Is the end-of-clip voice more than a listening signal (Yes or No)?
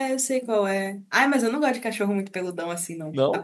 No